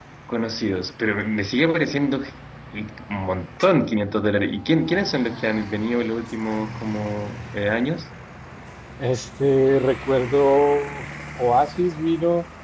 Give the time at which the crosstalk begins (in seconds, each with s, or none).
none